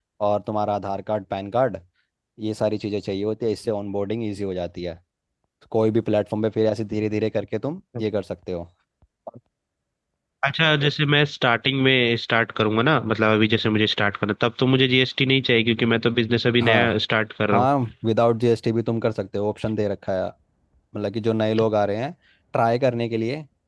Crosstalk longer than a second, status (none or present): none